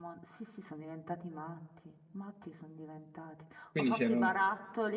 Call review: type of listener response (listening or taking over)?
listening